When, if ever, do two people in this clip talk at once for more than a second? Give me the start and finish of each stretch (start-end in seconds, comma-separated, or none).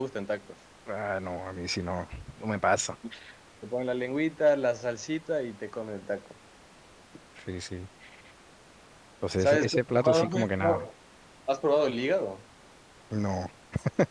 9.4-10.9